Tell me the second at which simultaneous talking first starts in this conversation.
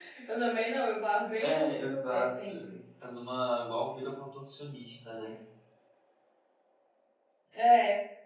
1.4 s

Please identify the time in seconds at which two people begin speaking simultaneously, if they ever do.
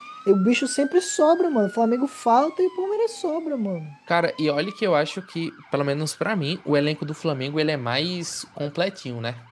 none

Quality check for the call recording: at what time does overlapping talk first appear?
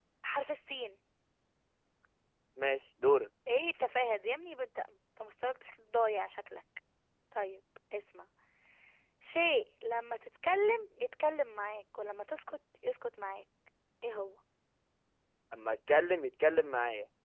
none

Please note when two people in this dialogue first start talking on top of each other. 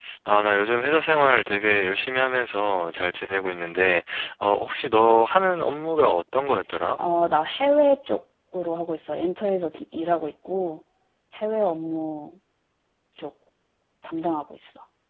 none

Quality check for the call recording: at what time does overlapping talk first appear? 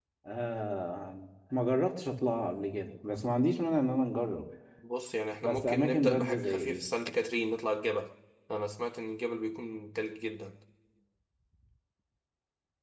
5.4 s

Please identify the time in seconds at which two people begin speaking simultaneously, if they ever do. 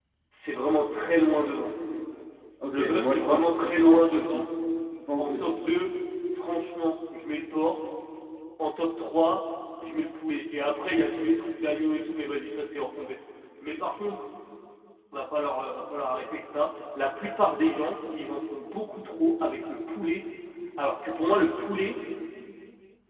2.7 s

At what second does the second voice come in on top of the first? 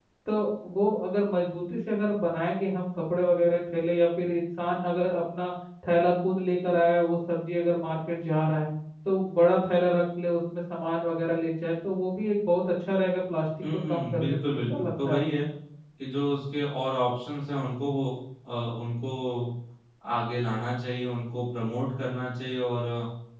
13.9 s

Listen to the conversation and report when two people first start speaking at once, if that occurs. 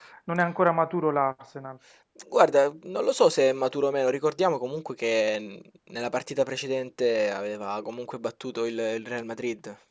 none

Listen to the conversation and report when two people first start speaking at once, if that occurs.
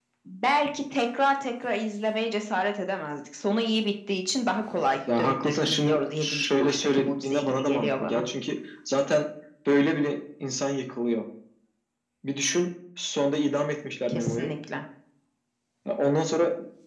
5.2 s

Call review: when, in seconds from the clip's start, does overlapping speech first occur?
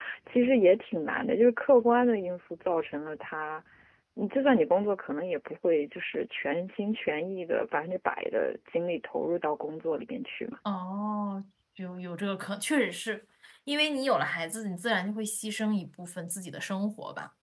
none

